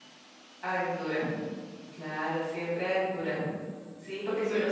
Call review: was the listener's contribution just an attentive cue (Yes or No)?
Yes